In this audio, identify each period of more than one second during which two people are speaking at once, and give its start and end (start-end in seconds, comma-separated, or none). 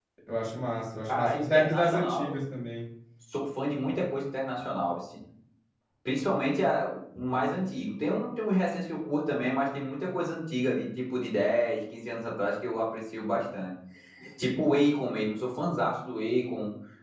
1.1-2.4